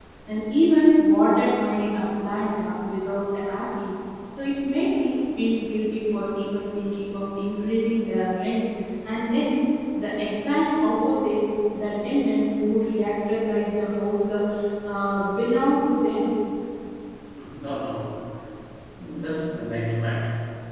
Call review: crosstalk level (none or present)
none